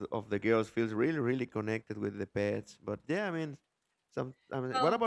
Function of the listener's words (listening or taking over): listening